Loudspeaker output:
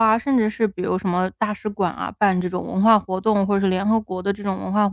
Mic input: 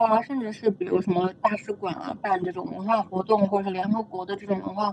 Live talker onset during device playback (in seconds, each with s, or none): none